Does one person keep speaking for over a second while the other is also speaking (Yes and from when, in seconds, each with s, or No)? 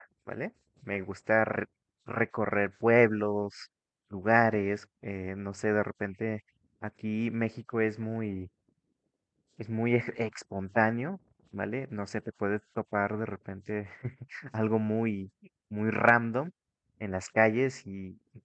No